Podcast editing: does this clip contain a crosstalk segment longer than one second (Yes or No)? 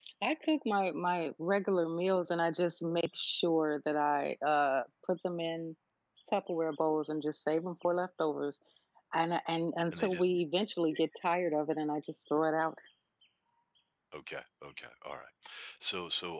No